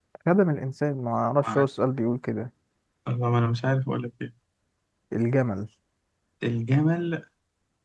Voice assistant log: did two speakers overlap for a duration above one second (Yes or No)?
No